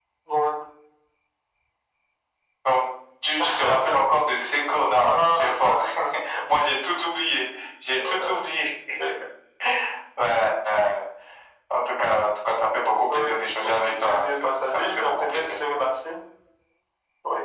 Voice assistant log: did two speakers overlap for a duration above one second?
Yes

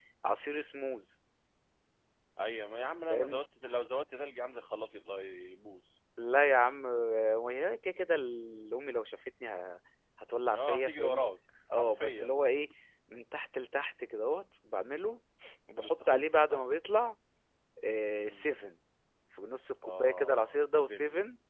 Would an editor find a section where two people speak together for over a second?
Yes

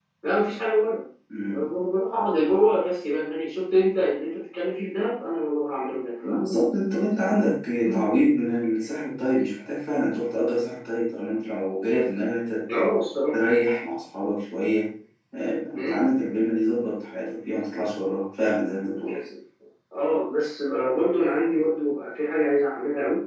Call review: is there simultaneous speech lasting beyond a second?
No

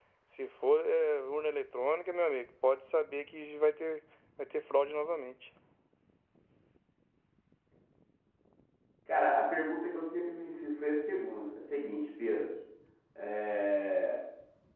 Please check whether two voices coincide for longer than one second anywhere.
No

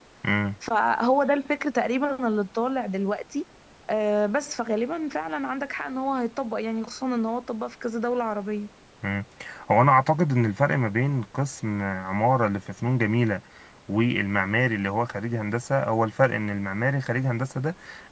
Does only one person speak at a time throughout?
Yes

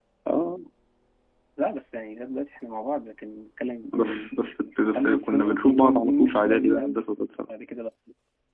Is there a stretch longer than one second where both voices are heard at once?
Yes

